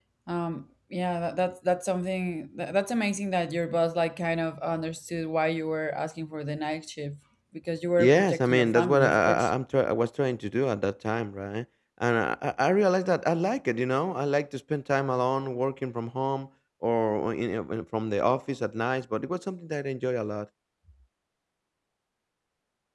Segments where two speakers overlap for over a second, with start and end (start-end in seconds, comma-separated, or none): 8.0-9.5